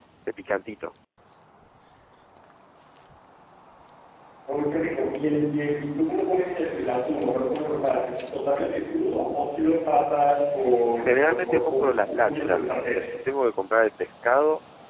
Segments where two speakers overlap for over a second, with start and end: 11.0-13.0

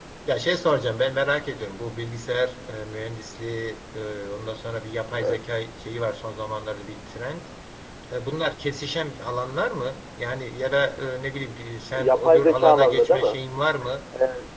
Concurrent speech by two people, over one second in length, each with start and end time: 12.0-13.4

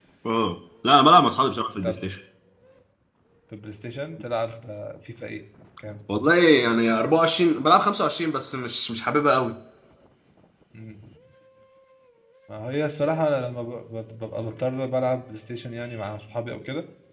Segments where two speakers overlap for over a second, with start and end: none

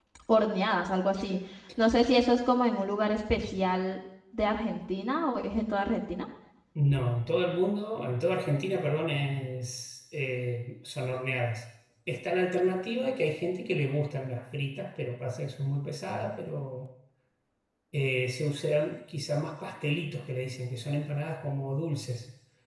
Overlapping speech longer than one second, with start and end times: none

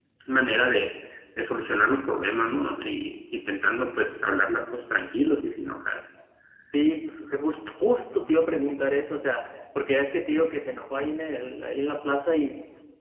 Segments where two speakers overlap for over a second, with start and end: none

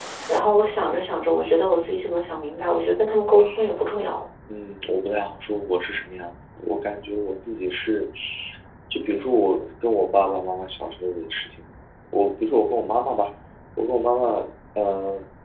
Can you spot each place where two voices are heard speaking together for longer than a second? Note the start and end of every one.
none

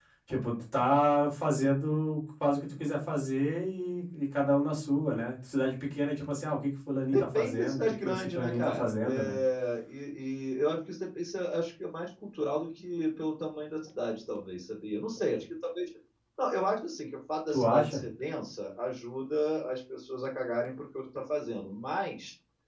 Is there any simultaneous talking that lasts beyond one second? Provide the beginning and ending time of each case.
7.3-9.4

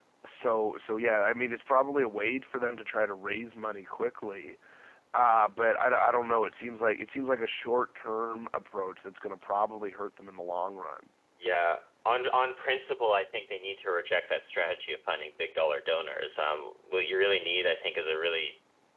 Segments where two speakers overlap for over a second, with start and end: none

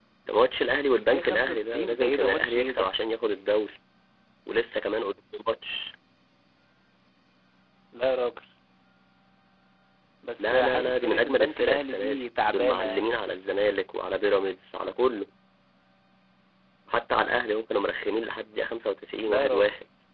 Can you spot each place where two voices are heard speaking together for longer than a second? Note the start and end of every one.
1.0-2.9, 10.4-13.1

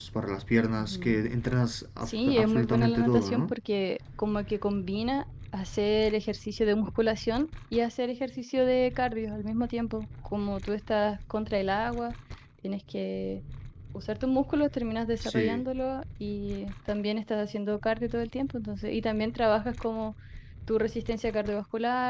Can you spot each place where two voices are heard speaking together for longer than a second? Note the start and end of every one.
2.0-3.5

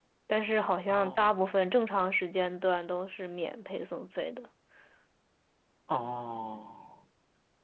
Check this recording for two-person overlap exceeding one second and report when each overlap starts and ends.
none

